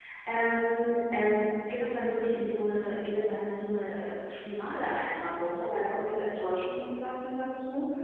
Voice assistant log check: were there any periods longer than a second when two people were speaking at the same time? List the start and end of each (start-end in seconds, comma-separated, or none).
none